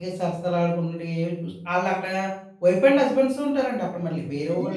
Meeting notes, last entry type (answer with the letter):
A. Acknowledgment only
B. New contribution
B